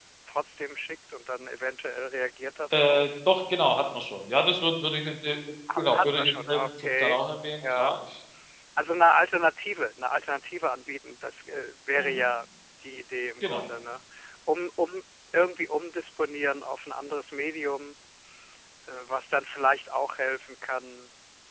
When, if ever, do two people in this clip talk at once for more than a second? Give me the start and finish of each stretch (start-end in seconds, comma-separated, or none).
5.8-7.2